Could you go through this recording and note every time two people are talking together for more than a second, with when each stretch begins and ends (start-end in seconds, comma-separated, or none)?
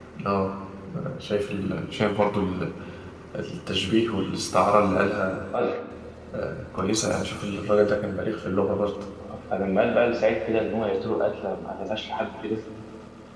none